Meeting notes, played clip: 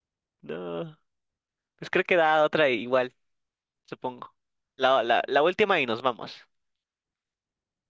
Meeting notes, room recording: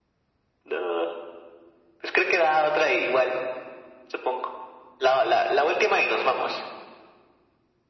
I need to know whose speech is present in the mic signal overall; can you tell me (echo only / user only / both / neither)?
echo only